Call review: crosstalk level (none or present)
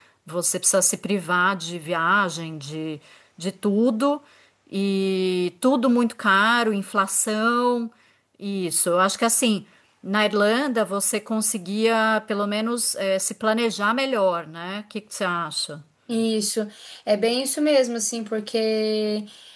none